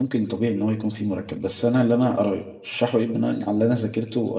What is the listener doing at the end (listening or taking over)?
listening